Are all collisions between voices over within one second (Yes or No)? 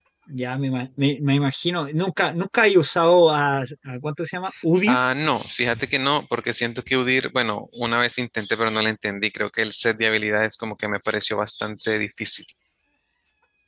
Yes